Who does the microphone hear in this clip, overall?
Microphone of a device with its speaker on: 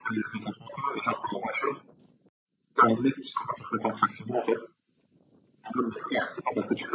echo only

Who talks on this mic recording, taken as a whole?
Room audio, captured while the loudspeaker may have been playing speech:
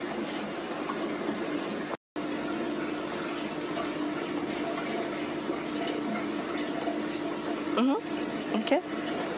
user only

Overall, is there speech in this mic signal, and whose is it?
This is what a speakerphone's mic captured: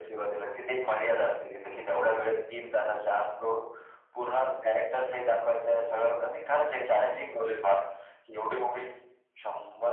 echo only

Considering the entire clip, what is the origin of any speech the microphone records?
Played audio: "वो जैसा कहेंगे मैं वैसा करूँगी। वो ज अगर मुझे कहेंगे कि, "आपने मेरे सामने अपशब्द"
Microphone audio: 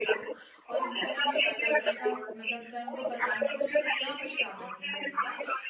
both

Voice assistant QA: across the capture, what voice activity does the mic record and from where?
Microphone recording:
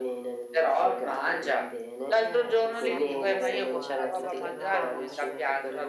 both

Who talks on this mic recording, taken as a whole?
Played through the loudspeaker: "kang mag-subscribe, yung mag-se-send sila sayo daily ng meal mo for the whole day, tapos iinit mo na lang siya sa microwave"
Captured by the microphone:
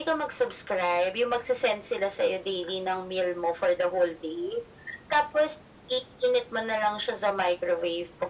echo only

